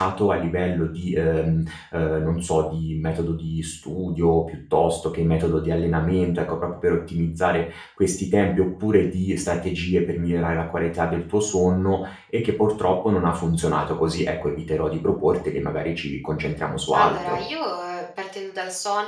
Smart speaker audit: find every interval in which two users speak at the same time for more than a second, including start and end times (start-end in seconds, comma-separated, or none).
none